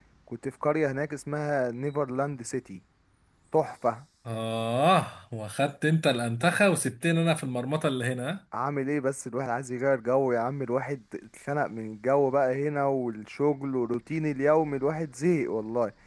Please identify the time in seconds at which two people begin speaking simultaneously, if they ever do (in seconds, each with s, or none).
none